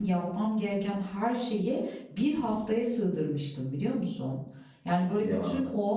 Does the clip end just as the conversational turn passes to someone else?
No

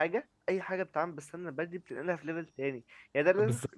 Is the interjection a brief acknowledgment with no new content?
Yes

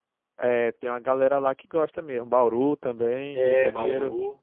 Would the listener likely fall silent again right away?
No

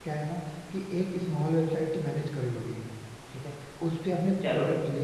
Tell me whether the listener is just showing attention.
Yes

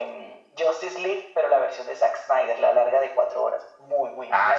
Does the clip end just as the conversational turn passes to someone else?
Yes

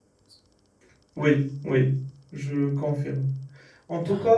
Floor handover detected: No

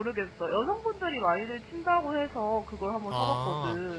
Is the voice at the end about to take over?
Yes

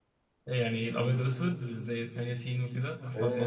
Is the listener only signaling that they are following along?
No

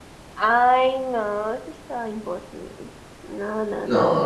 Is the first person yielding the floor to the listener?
Yes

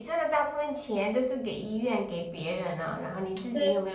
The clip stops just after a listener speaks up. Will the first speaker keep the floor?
Yes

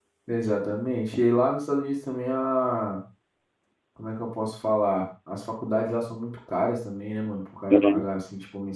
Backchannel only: Yes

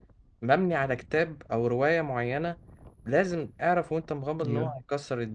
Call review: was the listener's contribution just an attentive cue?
Yes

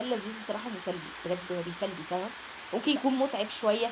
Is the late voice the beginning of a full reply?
No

